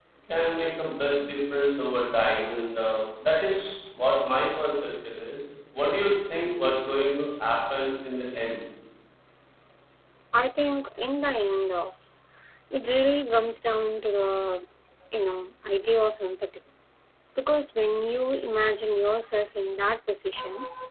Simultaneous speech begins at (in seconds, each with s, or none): none